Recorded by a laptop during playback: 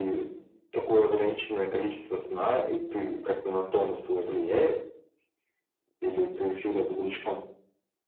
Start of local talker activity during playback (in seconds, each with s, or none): none